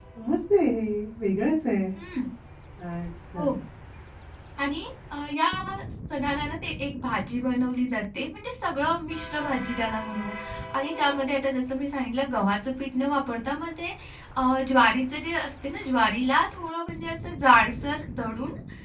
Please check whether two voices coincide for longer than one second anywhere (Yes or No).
No